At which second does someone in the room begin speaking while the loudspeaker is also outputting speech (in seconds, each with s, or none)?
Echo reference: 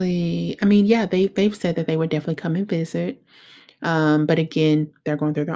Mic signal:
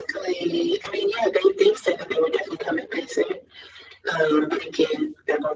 none